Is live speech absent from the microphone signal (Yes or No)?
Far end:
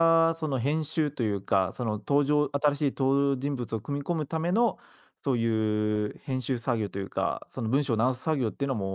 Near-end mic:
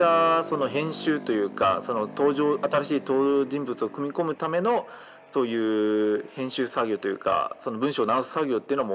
Yes